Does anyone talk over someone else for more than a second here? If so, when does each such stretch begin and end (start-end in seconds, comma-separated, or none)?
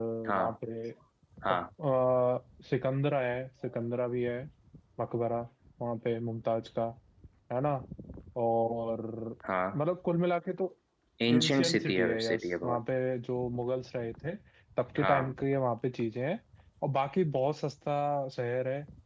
11.3-12.8